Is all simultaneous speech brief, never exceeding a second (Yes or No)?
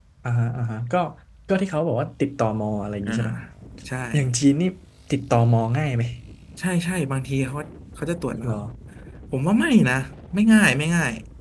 Yes